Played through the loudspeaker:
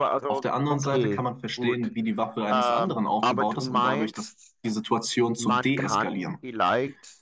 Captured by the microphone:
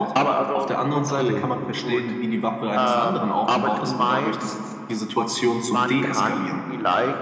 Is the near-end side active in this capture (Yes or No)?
No